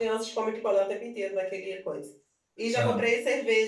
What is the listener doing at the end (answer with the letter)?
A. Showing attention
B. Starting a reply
A